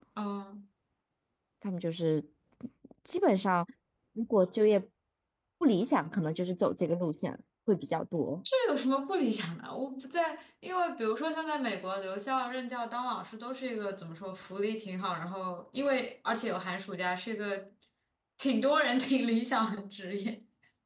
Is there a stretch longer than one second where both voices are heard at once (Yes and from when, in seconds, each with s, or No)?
No